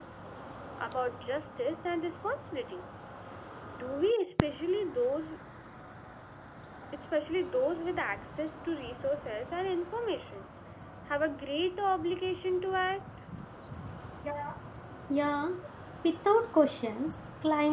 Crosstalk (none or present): none